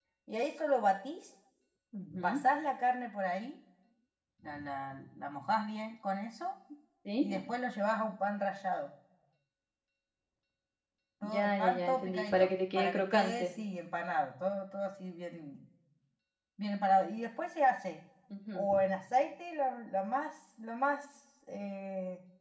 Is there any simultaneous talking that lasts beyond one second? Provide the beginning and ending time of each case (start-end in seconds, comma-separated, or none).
11.2-13.5